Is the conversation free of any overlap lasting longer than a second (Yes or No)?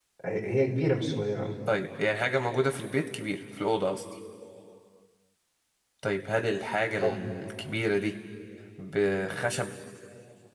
Yes